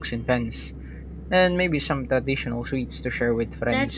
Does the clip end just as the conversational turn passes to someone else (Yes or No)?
Yes